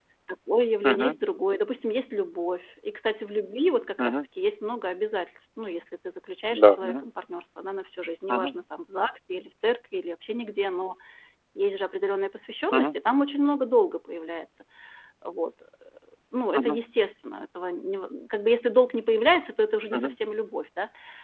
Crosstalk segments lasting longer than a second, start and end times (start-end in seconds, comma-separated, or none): none